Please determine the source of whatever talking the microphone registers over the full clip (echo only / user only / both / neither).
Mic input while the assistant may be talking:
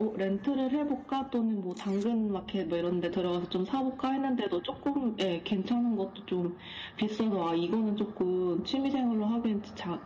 echo only